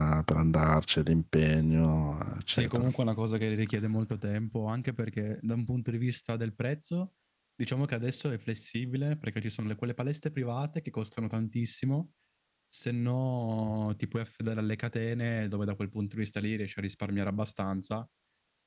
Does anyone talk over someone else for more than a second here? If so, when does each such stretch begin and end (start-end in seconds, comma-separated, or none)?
none